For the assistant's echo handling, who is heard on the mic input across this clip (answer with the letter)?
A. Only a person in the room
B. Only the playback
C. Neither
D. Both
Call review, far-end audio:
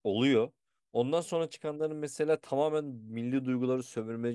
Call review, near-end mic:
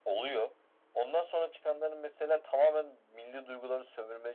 B